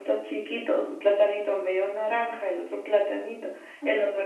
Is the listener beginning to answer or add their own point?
No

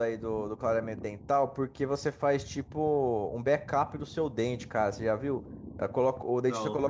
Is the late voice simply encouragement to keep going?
Yes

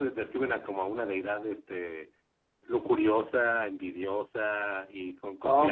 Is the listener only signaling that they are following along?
No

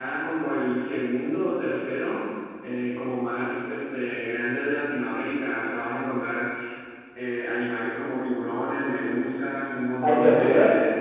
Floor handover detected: No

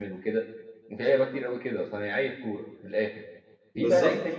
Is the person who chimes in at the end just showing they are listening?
Yes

